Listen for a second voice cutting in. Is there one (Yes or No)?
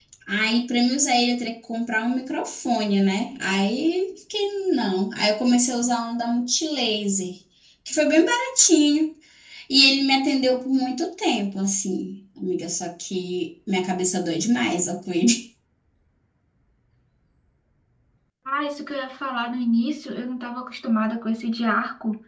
No